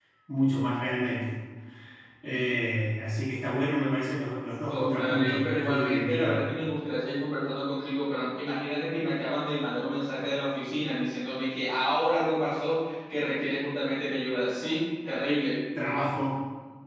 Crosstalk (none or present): present